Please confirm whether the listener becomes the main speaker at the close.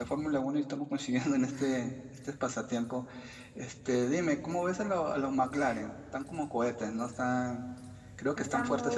Yes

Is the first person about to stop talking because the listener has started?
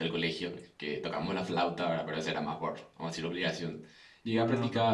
No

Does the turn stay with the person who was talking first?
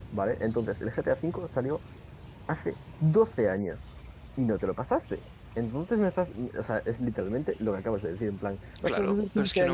No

